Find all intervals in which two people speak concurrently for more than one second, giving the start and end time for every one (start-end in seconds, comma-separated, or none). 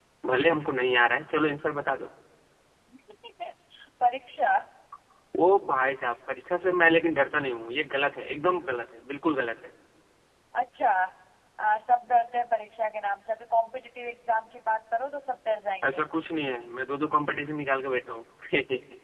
none